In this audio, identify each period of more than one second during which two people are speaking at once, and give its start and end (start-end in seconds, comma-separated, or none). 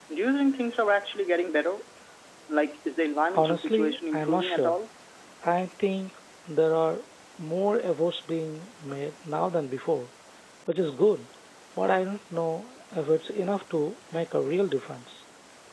3.4-4.8